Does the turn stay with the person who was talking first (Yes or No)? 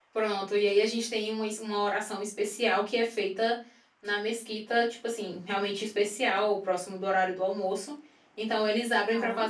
Yes